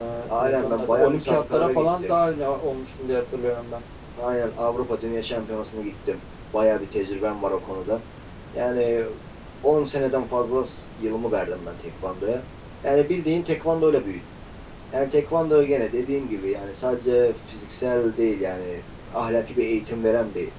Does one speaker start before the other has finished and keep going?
Yes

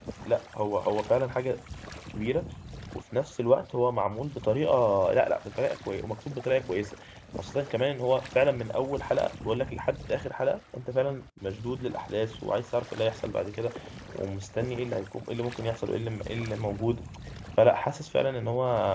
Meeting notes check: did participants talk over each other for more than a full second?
No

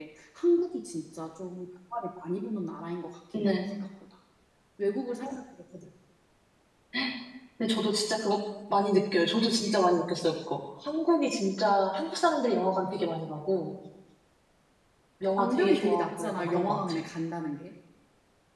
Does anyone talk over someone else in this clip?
Yes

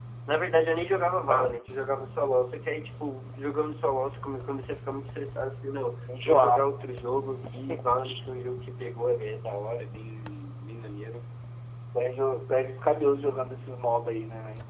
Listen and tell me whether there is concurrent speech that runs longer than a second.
No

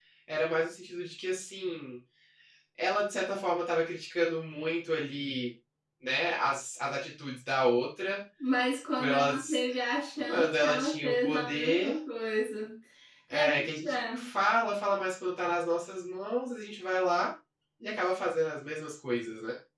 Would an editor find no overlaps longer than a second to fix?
No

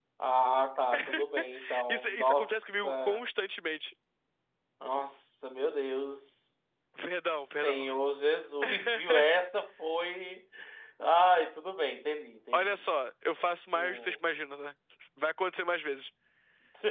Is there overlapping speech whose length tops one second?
Yes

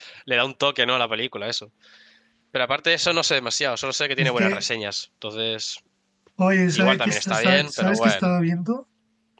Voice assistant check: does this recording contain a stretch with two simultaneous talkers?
Yes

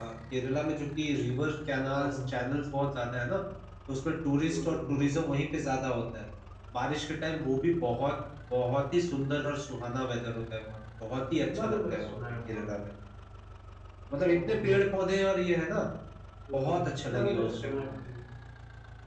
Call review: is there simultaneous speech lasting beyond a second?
Yes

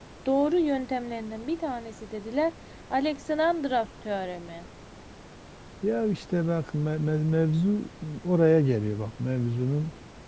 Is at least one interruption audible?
No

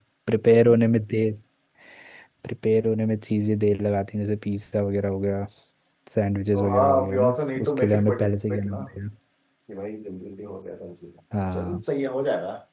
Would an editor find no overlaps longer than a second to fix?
No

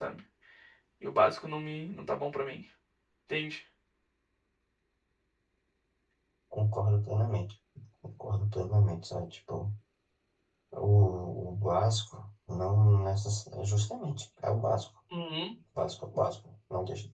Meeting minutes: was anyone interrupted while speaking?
No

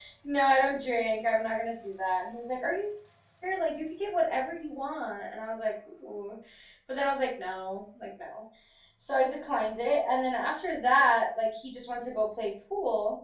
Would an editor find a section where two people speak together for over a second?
No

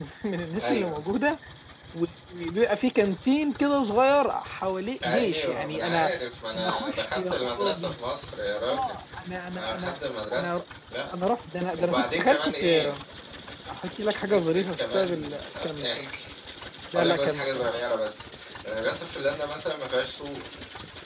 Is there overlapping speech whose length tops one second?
Yes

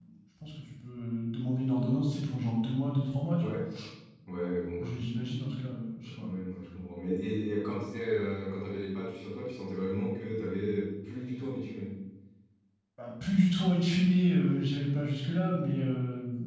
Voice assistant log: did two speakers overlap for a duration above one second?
No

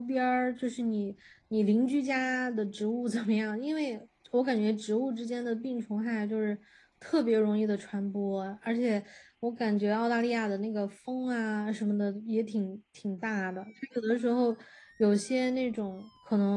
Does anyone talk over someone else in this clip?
No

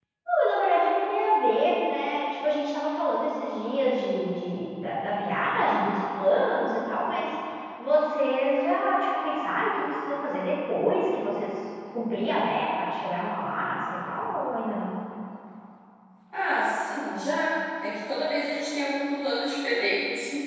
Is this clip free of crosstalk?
Yes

